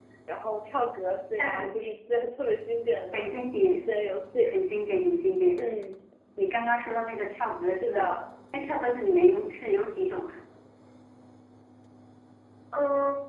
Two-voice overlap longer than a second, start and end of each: none

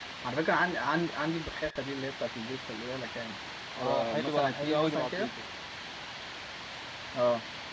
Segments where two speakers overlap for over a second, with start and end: 3.8-5.3

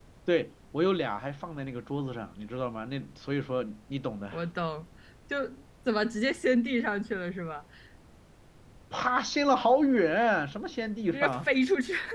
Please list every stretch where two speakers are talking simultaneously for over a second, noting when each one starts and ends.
none

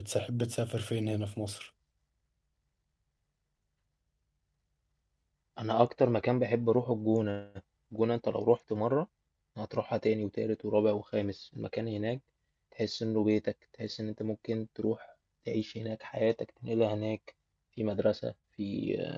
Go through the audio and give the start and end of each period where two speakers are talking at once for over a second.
none

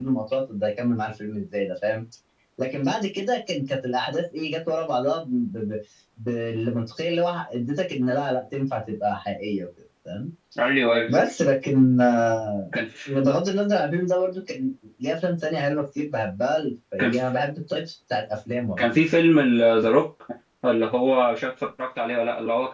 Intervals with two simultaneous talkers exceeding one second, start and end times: none

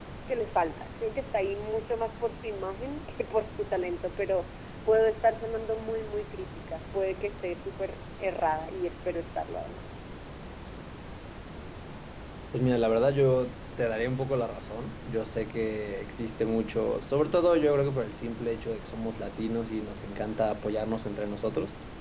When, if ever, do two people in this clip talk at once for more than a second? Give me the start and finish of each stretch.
none

